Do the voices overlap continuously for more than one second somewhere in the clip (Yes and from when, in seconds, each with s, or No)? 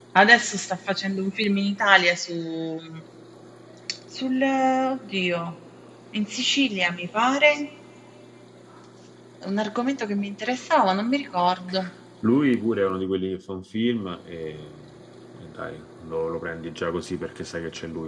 No